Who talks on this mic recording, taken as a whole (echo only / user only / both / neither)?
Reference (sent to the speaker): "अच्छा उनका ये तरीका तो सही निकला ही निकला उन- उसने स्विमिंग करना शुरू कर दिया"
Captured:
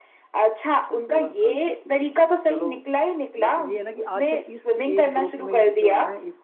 both